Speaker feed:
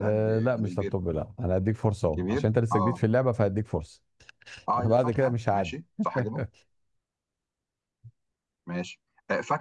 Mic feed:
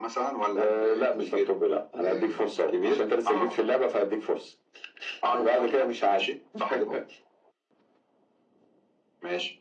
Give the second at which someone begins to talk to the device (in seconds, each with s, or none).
2.0 s